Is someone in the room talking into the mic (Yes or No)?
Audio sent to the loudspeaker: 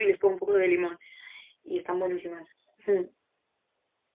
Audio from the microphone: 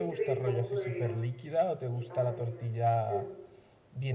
Yes